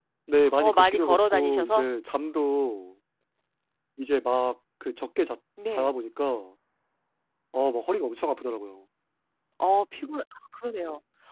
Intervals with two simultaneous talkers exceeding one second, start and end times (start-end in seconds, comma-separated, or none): 0.6-1.9